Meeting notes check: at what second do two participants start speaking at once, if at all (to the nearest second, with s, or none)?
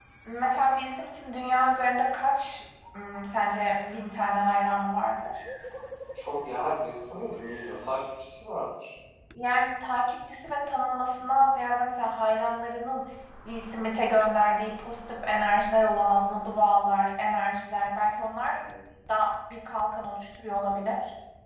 none